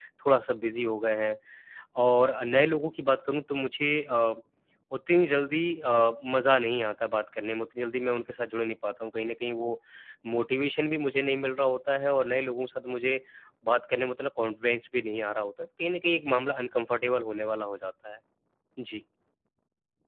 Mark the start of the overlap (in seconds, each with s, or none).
none